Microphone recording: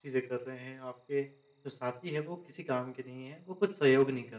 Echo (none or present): none